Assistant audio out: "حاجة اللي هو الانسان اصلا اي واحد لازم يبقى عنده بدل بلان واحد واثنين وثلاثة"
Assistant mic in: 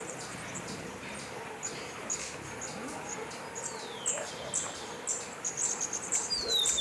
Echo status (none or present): none